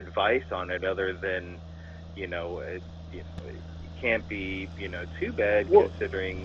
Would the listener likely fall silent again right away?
Yes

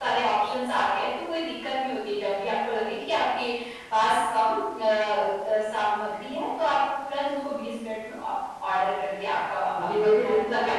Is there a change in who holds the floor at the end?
Yes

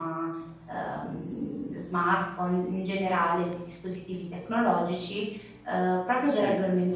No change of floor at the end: Yes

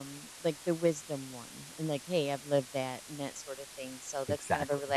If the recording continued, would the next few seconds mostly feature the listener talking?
No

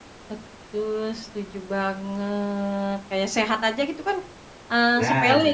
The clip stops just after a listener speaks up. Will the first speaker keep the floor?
Yes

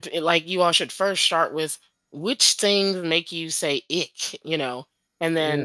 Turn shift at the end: No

